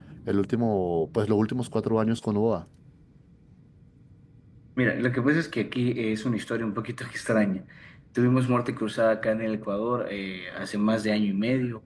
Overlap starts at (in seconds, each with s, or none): none